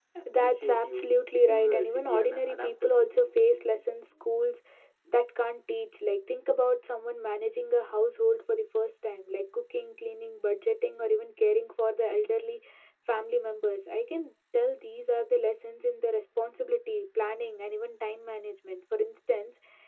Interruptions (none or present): present